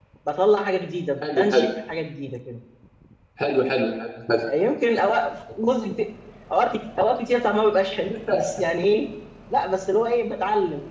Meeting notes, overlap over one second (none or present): none